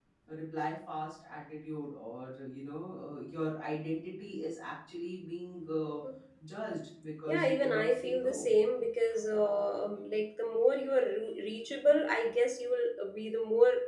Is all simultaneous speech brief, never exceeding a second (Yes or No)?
No